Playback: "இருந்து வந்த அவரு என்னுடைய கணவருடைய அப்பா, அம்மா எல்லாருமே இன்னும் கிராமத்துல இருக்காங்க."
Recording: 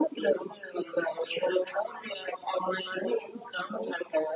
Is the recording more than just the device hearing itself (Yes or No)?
No